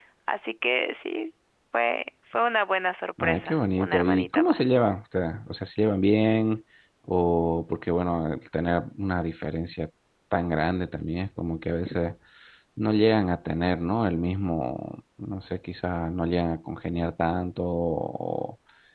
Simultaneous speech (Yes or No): Yes